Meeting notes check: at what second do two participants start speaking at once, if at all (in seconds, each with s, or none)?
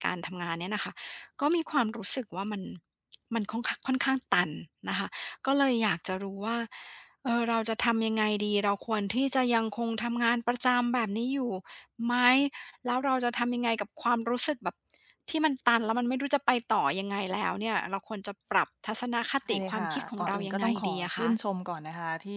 19.4 s